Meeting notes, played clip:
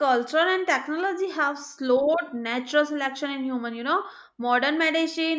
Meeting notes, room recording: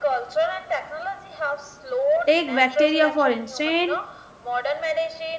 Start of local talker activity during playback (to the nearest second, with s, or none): 2 s